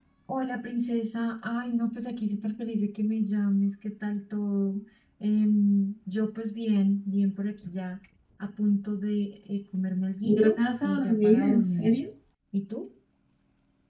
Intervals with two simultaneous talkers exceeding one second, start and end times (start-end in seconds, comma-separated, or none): 10.2-11.9